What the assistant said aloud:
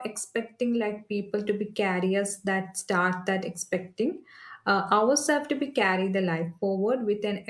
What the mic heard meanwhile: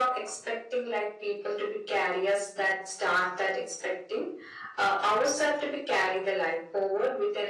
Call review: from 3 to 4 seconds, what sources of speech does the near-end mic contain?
echo only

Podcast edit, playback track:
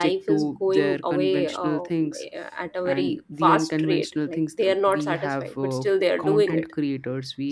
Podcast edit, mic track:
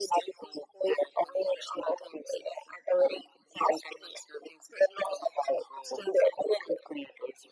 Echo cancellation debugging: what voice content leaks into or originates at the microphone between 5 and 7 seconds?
echo only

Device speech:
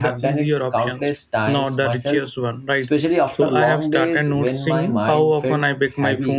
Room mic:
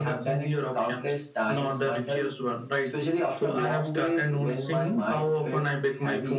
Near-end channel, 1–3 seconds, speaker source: echo only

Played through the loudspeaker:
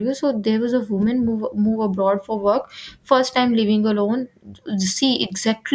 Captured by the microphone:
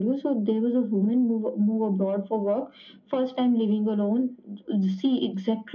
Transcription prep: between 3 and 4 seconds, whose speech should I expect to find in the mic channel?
echo only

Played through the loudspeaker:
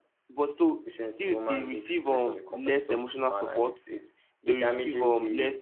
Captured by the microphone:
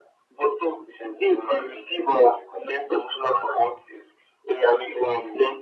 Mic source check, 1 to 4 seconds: echo only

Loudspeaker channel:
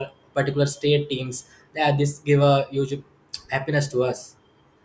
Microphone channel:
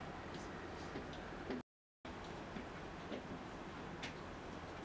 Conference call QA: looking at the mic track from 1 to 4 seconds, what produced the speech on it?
neither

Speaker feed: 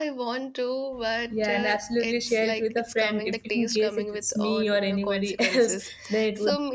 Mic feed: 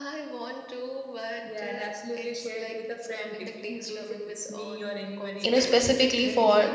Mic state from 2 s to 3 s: echo only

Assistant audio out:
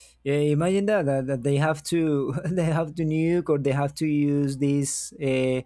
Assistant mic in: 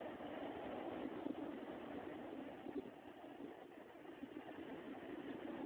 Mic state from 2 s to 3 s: neither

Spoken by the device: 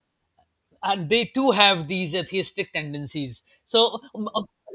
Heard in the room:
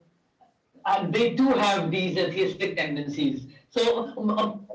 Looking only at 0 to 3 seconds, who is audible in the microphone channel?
echo only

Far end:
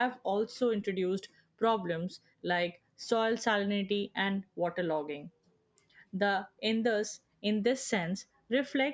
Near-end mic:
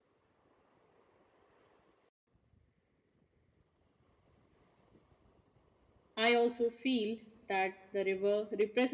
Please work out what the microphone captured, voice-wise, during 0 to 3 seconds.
neither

